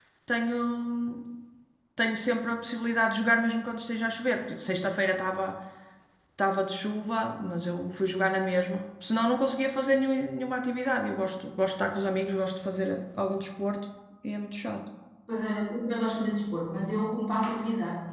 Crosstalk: none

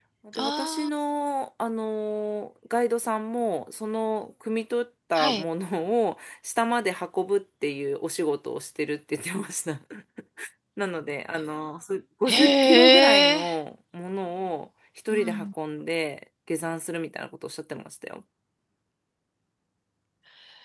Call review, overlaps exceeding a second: present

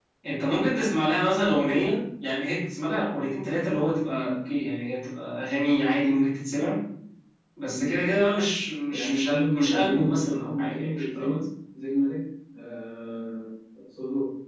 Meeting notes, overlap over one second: present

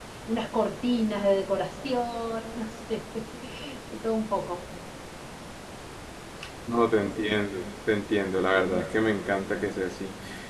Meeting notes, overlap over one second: none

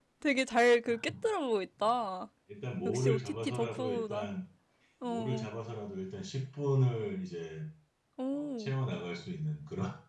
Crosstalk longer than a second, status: present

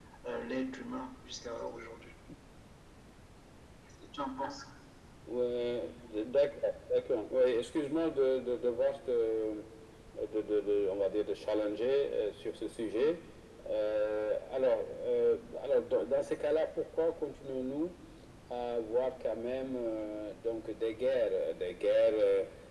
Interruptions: none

